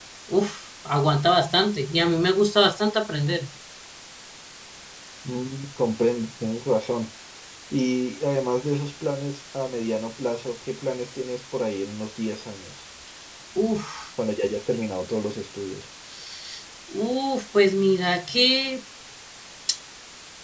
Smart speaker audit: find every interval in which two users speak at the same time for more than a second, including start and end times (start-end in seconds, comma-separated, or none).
none